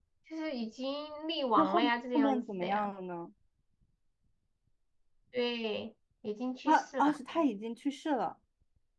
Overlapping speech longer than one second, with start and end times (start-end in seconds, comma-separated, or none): 1.6-2.9